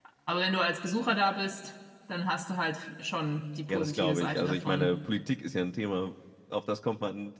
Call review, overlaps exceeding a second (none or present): present